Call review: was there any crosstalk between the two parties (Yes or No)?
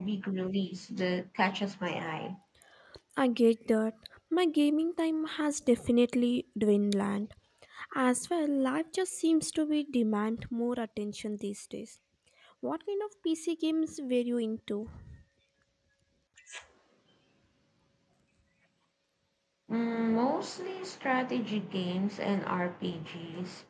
No